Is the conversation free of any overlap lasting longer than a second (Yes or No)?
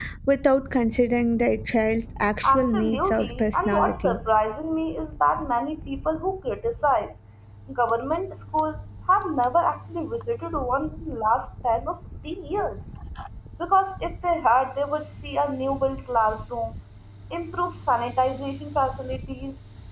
No